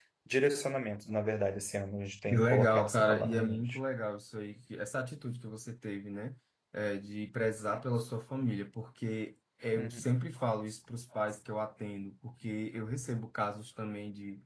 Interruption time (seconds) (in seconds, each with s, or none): 2.3 s